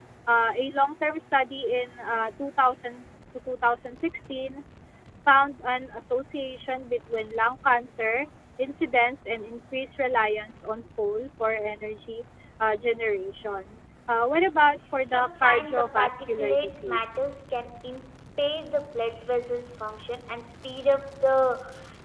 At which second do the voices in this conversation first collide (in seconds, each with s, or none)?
15.1 s